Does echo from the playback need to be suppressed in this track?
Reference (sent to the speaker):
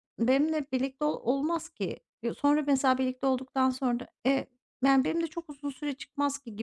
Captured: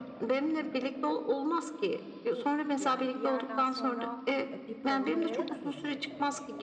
Yes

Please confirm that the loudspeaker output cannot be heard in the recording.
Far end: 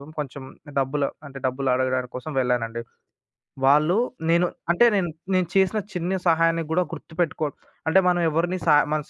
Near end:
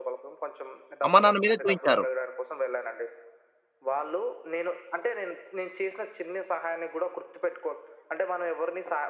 No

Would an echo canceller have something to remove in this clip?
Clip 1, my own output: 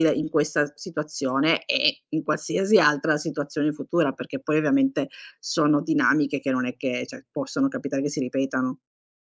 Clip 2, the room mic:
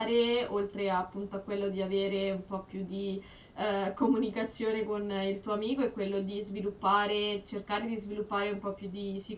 No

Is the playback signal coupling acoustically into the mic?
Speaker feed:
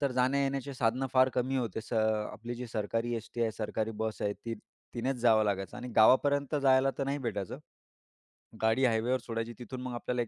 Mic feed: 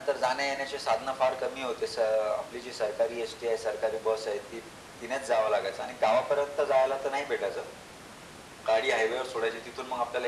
Yes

